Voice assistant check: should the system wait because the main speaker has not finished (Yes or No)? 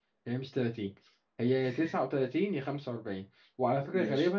Yes